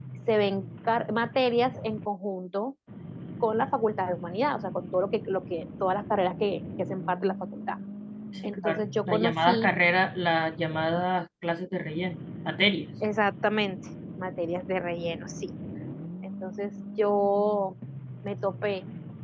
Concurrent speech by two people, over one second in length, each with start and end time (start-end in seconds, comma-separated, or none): 8.4-9.7